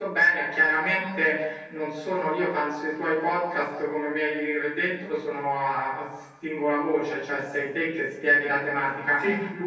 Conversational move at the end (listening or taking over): listening